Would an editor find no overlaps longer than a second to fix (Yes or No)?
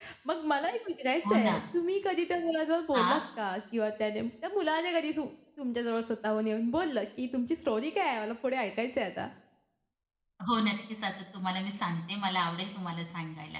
Yes